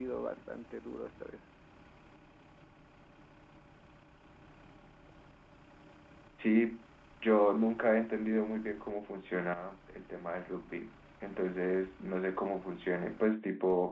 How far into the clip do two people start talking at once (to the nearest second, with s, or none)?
none